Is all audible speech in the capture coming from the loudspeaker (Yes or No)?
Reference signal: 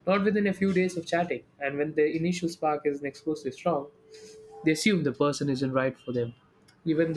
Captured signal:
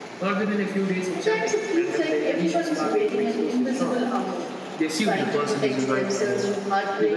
No